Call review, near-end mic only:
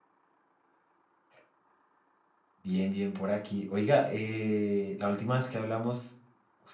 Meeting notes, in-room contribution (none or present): present